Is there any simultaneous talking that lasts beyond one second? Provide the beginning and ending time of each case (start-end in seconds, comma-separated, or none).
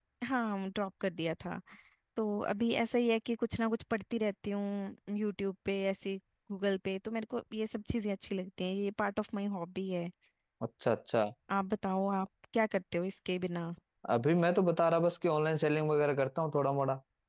none